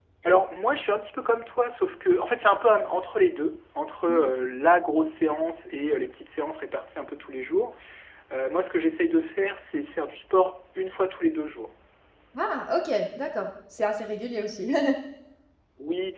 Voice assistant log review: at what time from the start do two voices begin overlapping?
none

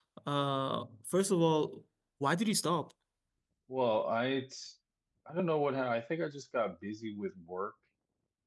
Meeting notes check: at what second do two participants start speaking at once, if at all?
none

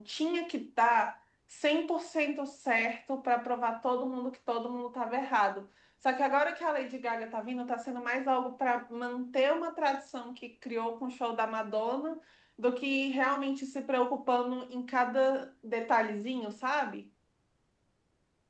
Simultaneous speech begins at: none

